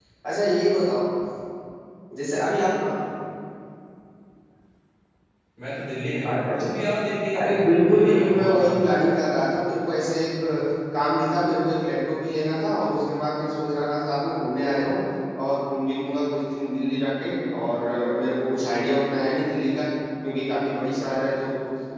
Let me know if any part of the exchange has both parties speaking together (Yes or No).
Yes